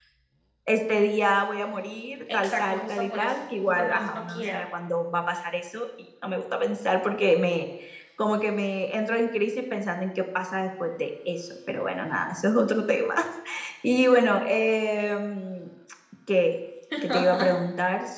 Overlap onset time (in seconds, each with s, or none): 2.4 s